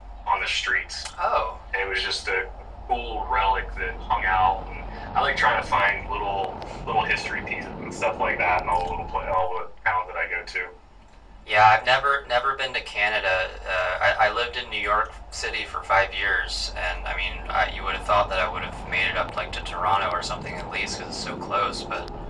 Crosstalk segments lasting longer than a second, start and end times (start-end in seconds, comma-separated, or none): none